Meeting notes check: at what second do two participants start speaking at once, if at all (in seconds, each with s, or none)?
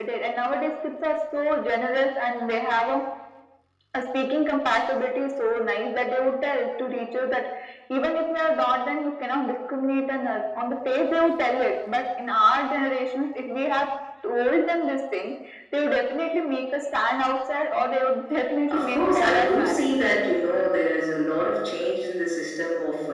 18.7 s